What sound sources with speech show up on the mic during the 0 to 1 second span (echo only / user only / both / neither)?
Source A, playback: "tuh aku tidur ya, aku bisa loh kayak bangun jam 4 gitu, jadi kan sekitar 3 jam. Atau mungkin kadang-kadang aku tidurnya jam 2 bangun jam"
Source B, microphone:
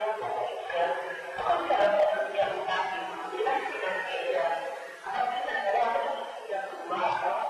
echo only